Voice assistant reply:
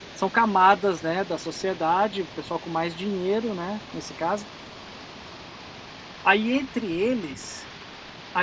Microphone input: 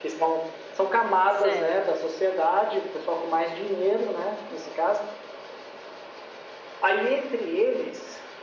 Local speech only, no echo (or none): certo.